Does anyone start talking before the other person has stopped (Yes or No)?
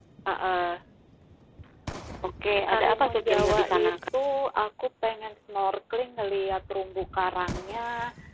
Yes